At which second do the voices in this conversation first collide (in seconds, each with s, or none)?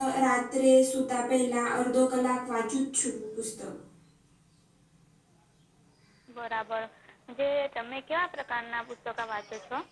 none